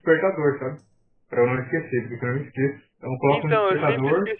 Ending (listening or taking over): taking over